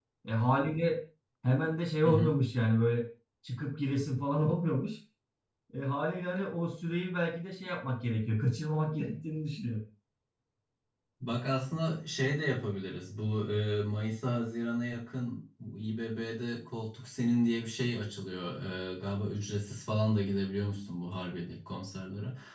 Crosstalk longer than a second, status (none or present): none